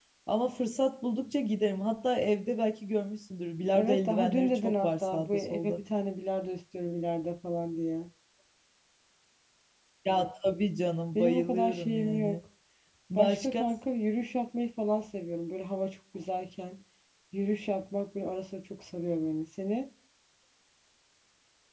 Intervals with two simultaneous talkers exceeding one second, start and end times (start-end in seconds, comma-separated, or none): 3.7-5.8, 11.2-12.4